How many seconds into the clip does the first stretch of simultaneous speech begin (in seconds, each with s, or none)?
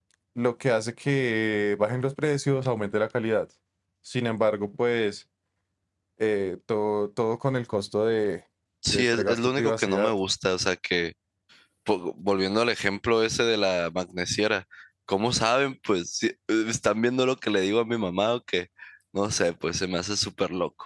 8.9 s